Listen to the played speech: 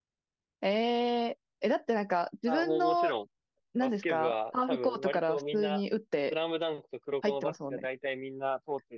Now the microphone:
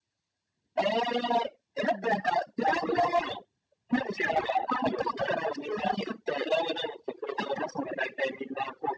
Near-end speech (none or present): present